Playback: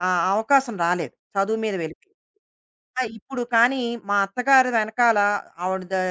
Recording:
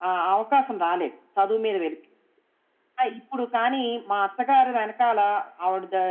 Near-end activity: none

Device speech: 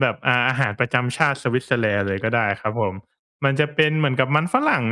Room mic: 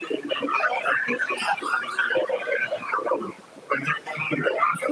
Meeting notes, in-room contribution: none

